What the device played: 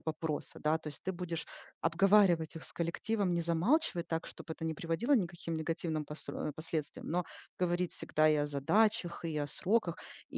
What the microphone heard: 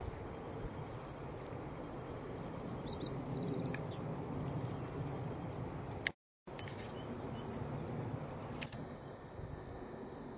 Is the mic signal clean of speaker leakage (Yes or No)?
Yes